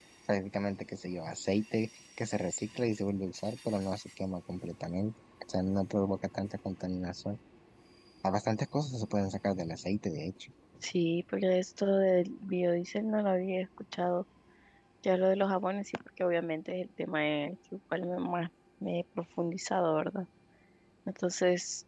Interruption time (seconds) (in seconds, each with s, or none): none